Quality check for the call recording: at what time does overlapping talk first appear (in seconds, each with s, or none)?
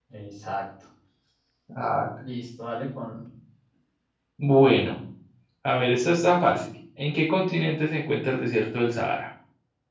none